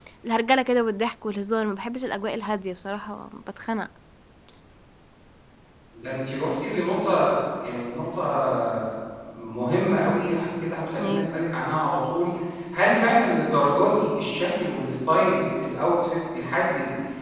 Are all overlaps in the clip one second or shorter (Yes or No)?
Yes